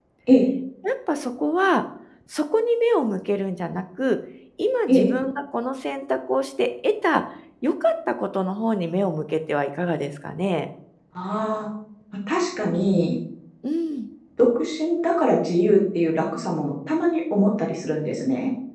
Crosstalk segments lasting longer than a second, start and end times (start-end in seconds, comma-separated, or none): none